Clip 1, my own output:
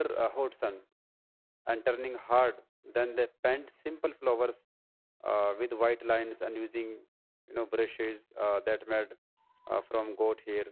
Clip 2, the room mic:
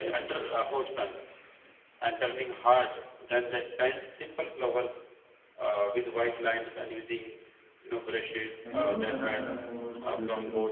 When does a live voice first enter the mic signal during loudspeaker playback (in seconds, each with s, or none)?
8.6 s